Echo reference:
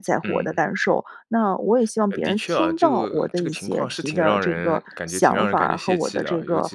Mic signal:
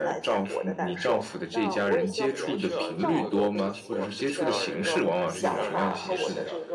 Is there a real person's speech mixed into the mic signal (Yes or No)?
Yes